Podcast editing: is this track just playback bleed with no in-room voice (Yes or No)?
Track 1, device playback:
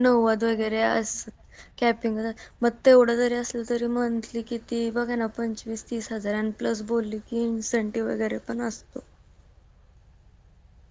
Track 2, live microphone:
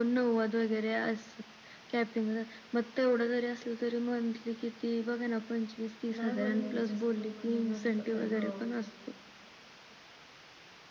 No